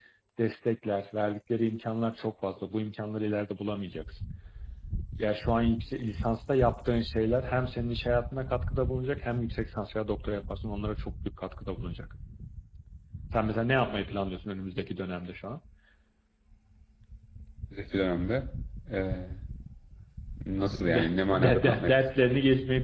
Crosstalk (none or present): present